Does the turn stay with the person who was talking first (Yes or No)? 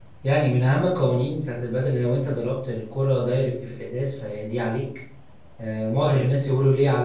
Yes